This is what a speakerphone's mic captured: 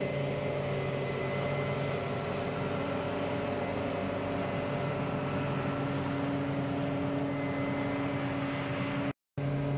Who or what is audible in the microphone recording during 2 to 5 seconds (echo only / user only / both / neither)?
neither